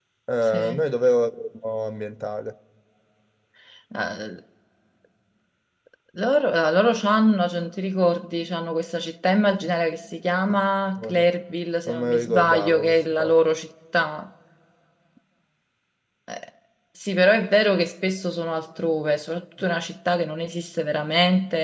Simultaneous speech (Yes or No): Yes